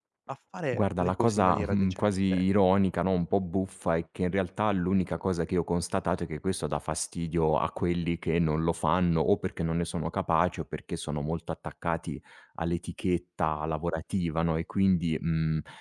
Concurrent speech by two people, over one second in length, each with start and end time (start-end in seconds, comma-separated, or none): 0.7-2.4